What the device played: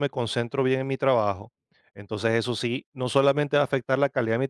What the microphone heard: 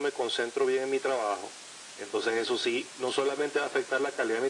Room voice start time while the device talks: none

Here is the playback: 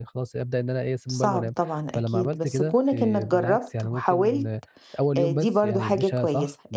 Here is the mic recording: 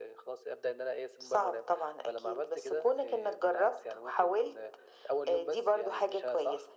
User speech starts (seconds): none

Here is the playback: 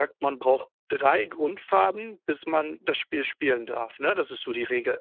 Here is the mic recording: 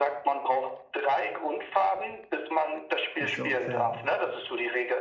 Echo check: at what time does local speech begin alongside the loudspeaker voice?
3.2 s

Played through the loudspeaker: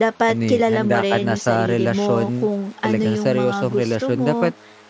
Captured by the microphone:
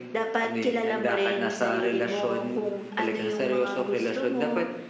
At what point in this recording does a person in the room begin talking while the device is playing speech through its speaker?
none

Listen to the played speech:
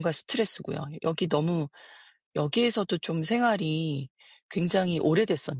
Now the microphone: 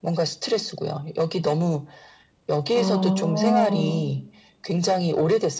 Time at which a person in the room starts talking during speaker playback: 2.7 s

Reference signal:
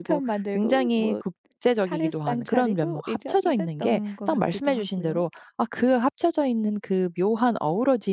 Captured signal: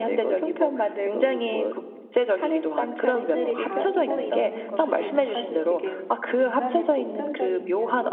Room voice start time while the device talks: 3.1 s

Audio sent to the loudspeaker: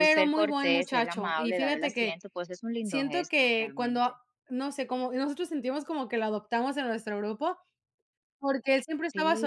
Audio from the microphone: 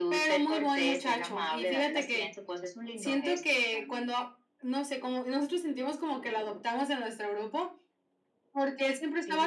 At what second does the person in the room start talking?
none

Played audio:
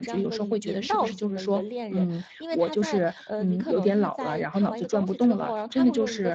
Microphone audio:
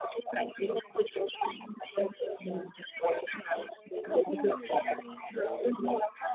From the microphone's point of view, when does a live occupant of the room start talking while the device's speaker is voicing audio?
4.2 s

